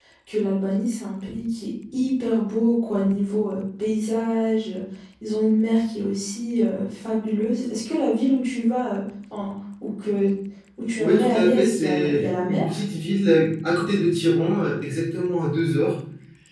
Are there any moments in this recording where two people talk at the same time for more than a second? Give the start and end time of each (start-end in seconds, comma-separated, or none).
11.0-12.6